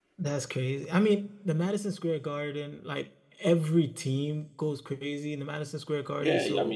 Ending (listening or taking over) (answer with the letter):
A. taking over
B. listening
A